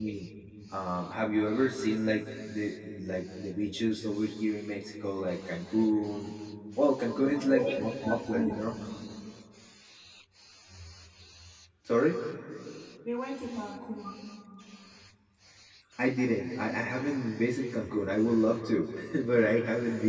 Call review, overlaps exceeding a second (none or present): present